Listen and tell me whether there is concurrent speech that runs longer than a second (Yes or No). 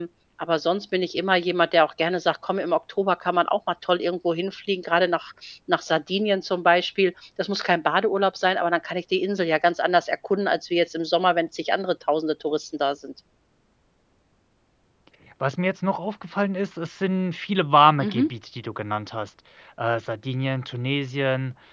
No